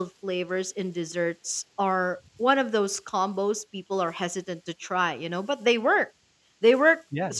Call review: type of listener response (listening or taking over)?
listening